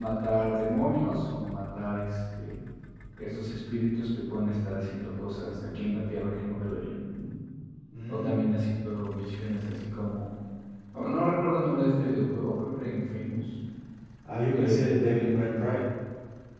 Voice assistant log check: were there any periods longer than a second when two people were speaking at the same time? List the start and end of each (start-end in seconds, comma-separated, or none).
14.5-15.8